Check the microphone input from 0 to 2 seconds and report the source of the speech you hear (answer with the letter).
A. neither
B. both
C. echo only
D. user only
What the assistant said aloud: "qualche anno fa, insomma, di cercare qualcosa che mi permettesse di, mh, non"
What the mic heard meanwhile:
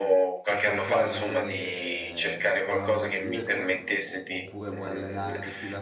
B